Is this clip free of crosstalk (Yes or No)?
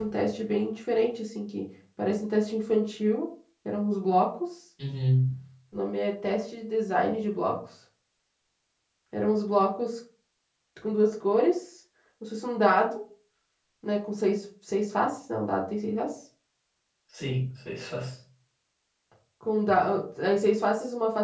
Yes